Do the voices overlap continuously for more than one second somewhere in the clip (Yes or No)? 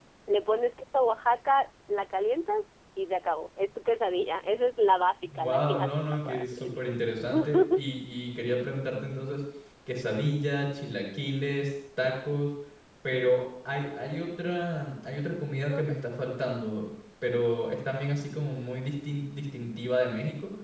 Yes